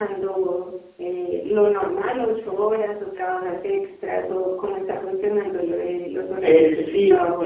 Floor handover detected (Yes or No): Yes